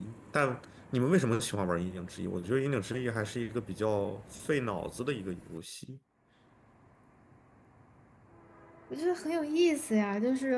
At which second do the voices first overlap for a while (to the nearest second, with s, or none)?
none